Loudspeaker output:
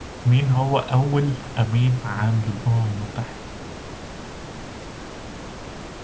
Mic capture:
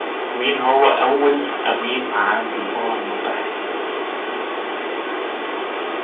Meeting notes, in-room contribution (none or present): none